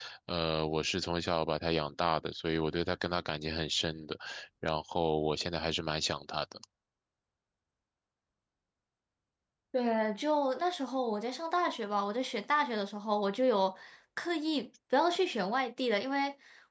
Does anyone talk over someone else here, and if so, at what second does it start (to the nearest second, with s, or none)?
none